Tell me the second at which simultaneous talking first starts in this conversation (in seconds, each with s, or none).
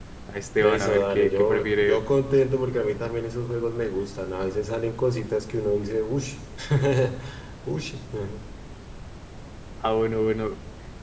0.6 s